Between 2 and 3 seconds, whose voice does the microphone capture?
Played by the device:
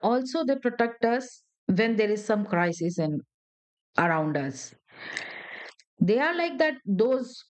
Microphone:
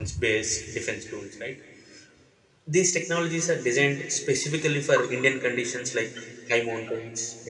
user only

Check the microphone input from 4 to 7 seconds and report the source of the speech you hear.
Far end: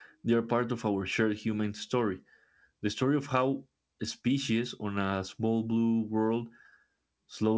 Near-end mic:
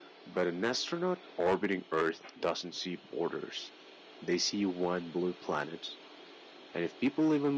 user only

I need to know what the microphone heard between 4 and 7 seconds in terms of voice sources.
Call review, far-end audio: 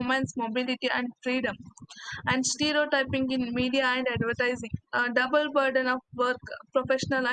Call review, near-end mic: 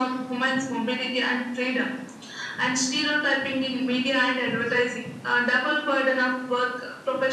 echo only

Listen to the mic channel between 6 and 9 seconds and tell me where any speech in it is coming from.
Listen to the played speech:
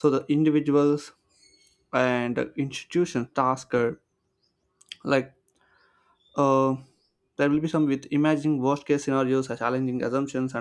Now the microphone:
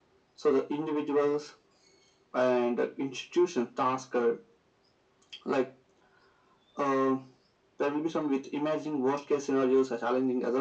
echo only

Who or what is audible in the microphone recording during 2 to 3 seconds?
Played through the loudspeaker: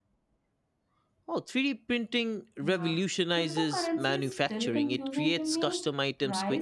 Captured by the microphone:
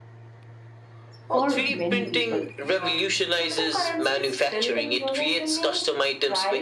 both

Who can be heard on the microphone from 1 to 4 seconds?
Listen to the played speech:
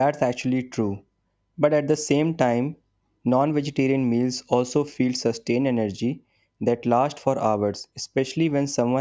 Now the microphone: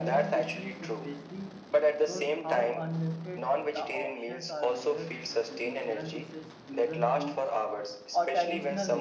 both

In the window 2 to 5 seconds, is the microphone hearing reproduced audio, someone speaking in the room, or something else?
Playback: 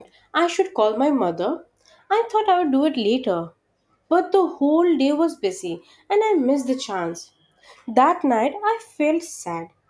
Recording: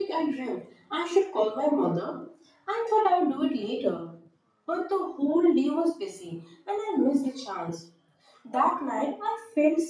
echo only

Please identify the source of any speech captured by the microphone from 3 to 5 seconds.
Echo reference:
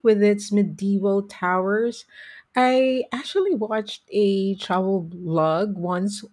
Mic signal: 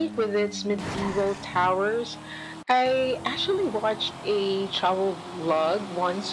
echo only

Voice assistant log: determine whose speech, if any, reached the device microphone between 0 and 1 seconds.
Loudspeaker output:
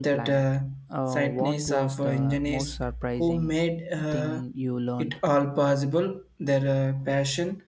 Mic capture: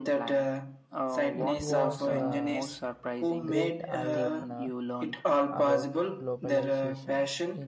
echo only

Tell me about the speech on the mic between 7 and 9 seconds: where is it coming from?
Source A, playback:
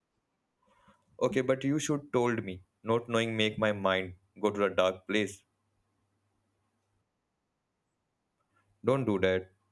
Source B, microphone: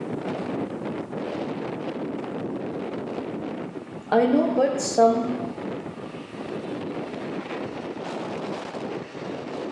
neither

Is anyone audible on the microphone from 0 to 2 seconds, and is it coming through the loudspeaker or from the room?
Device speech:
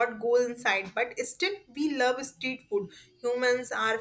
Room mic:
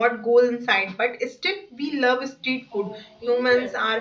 echo only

